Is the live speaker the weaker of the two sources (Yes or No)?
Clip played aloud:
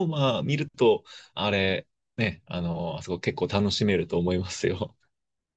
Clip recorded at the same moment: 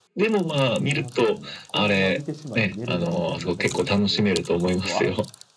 Yes